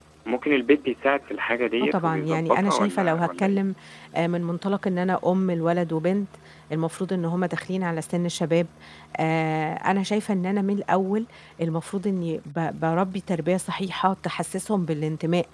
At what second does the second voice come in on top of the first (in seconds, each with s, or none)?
1.8 s